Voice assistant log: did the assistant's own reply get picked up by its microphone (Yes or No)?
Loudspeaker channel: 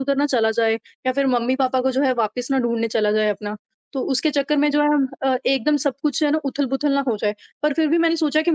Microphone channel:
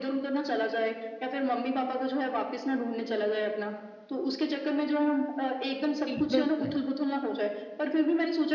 Yes